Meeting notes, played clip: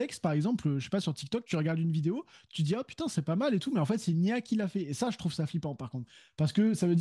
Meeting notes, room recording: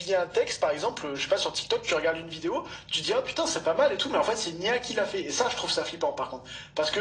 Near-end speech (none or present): none